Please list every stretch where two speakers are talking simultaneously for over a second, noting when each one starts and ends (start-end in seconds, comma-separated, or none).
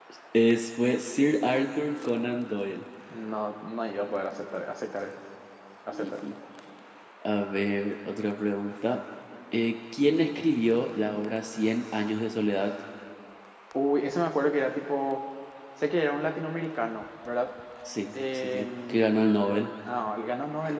18.1-19.4